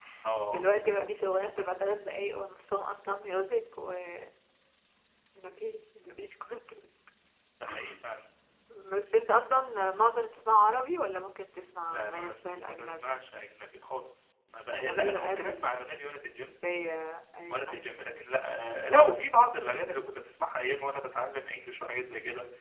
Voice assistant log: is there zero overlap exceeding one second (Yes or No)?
No